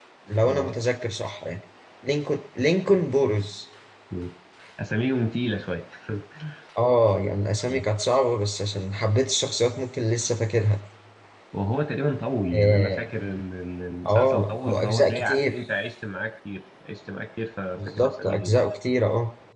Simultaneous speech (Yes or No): Yes